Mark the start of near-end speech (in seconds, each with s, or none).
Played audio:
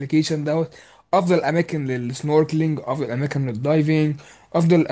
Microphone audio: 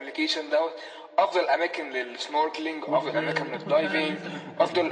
2.8 s